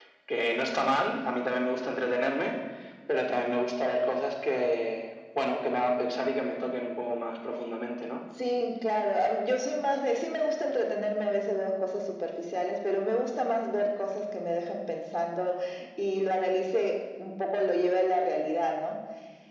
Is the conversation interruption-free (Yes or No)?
Yes